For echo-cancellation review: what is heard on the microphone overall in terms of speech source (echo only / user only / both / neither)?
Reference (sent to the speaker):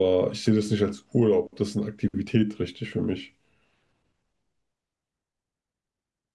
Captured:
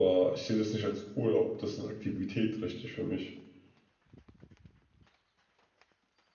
echo only